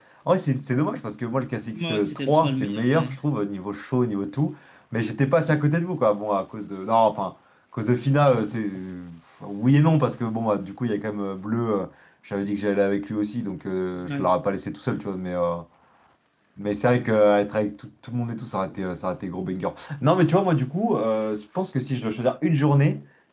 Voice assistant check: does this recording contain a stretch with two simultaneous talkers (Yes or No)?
Yes